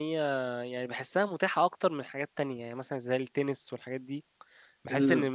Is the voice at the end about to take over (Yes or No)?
No